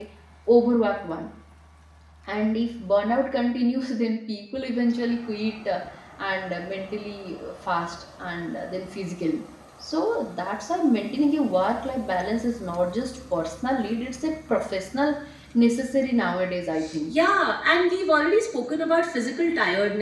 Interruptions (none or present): none